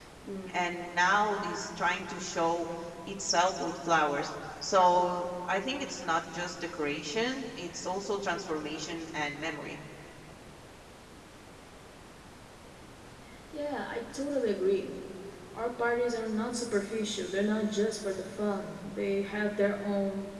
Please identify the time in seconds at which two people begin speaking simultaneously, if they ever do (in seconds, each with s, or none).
none